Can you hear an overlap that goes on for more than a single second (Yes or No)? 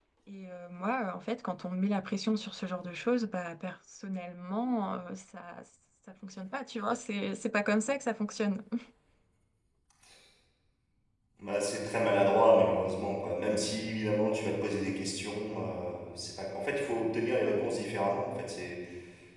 No